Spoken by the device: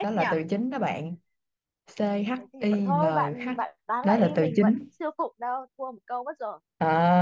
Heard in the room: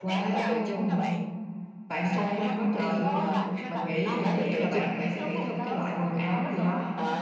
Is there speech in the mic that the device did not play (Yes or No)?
Yes